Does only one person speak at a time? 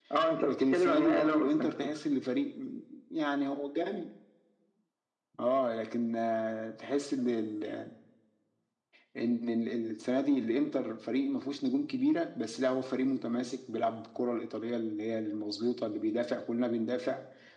No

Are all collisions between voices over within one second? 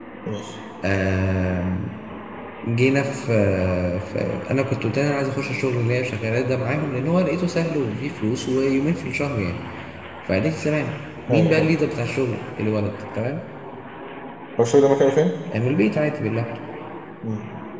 Yes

